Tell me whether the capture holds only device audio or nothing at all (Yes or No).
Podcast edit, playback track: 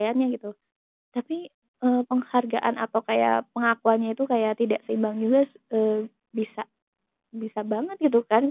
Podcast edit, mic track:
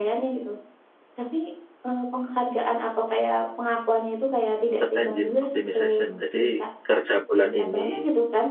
No